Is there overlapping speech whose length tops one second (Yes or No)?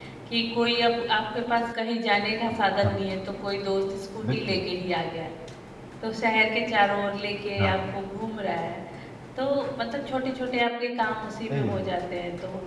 No